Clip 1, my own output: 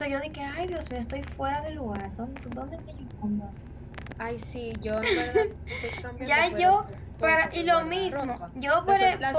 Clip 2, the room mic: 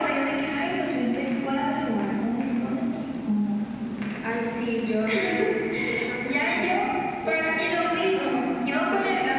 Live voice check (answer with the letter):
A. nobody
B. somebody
A